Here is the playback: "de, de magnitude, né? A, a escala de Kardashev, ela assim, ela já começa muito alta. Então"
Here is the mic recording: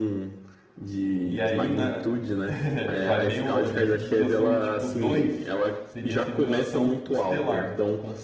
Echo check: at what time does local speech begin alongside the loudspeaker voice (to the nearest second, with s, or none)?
1 s